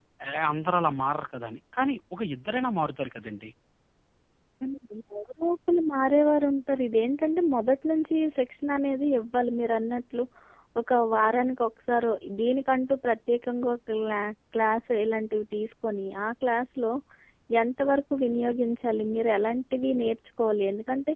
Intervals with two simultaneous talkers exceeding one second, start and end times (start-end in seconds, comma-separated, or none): none